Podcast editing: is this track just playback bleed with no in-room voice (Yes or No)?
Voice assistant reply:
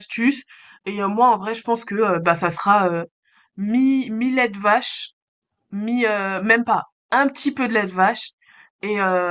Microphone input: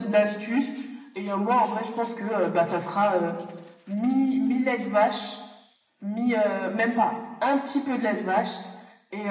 Yes